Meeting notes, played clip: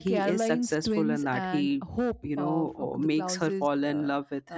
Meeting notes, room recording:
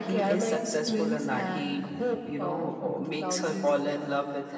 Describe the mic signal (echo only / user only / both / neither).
echo only